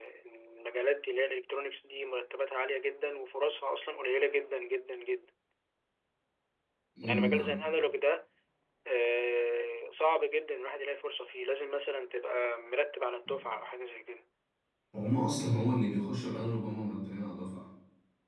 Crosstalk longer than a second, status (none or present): none